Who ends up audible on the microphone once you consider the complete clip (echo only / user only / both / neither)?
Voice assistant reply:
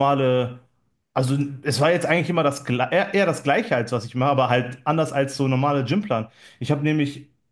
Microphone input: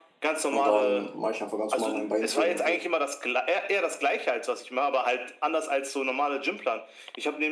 both